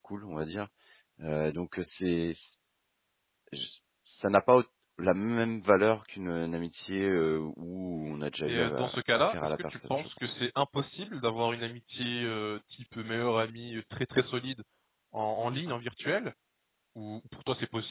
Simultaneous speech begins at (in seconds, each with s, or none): 8.5 s